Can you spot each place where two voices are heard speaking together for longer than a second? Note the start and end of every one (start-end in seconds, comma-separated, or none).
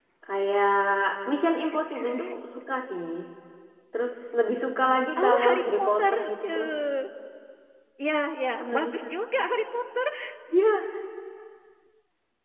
5.2-6.7